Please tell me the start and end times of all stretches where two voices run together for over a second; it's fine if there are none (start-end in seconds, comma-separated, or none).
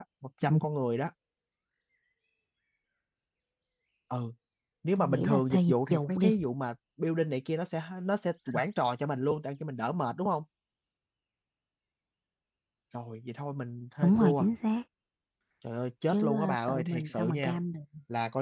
5.0-6.3, 16.1-17.6